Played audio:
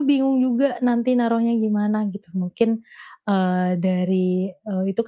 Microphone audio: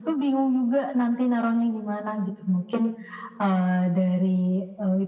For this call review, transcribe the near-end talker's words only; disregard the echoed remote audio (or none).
none